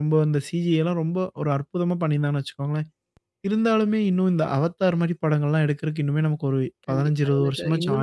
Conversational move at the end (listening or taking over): taking over